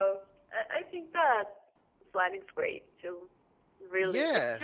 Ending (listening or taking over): listening